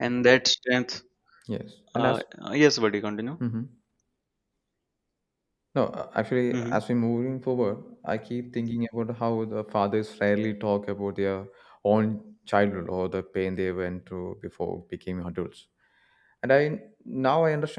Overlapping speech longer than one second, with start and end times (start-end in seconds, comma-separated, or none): none